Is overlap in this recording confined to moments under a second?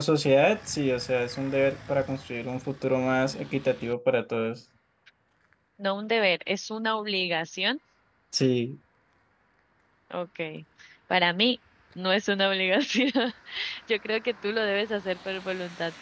Yes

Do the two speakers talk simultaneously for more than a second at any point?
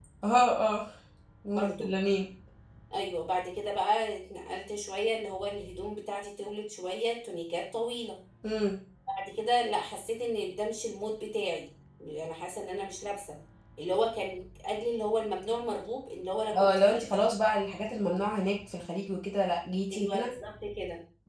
No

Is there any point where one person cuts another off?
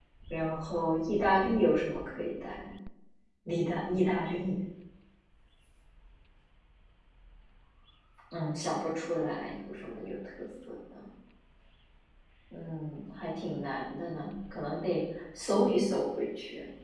No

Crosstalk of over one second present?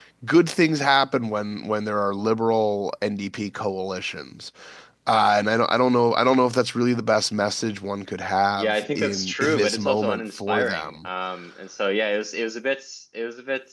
Yes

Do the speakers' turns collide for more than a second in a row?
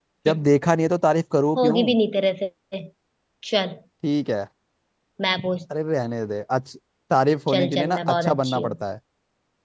Yes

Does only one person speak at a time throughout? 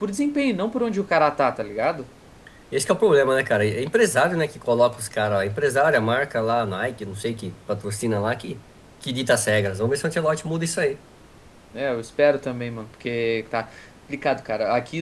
Yes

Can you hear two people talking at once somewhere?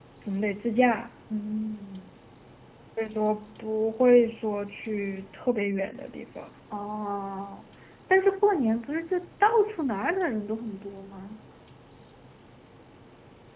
No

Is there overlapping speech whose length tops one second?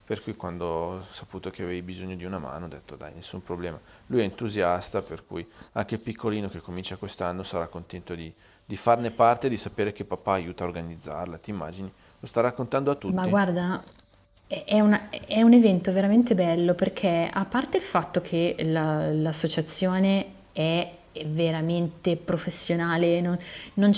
No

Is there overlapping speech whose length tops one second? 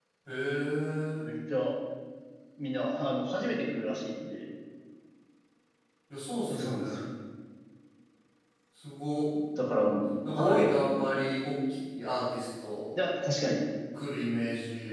No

